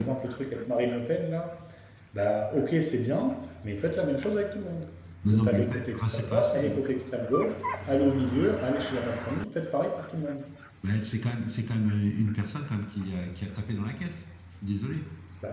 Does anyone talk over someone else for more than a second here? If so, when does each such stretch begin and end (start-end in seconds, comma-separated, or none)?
5.2-6.8